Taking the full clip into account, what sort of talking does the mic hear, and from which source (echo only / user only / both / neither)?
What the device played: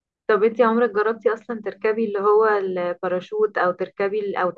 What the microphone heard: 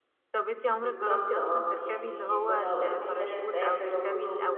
both